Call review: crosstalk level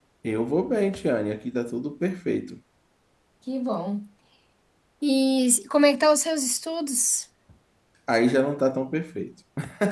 none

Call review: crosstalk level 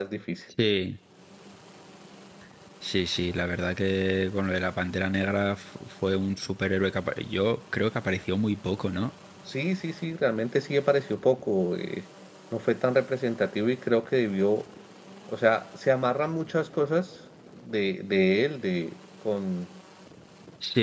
none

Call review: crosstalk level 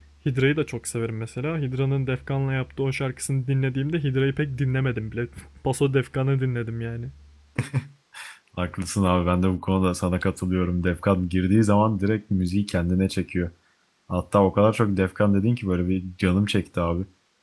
none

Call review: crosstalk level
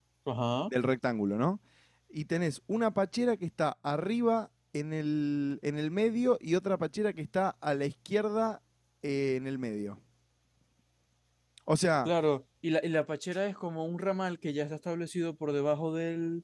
none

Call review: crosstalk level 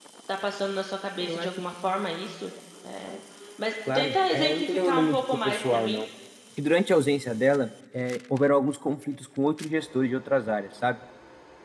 present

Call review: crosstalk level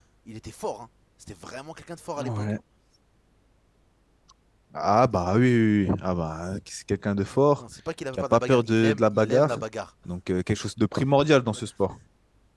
present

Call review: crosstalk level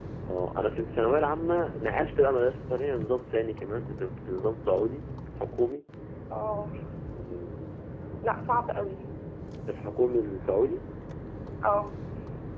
none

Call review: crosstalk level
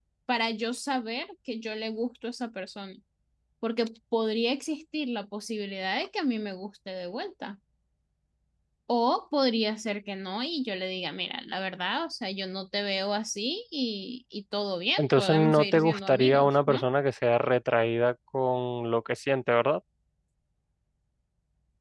present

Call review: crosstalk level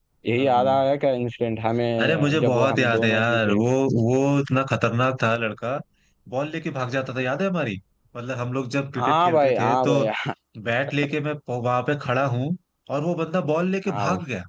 present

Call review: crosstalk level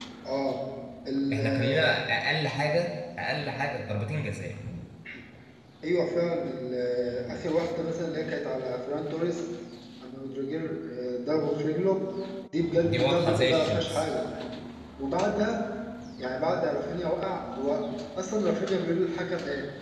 present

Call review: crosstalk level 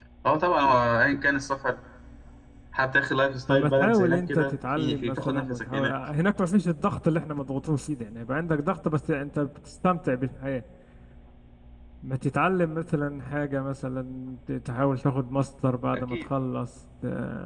present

